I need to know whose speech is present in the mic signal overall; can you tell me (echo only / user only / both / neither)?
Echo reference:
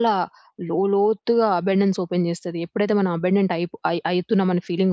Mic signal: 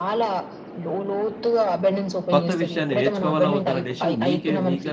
both